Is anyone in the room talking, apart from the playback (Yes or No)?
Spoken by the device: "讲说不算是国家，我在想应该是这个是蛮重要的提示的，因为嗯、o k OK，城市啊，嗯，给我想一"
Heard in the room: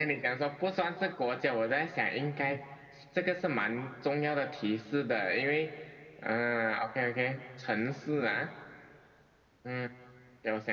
No